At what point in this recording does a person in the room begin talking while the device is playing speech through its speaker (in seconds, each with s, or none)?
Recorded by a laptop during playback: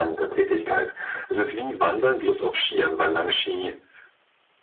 none